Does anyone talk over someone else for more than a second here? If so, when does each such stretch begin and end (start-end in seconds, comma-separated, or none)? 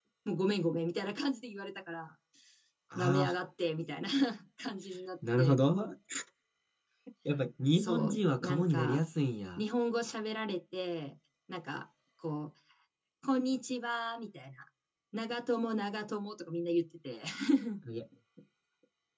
7.7-9.0